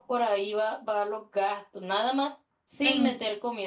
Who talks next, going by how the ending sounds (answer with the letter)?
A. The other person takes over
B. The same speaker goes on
B